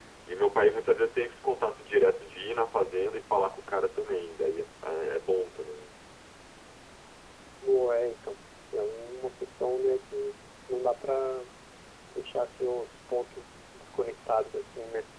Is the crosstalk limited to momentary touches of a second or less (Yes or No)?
Yes